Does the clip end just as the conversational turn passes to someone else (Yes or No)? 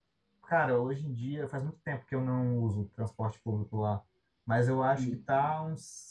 No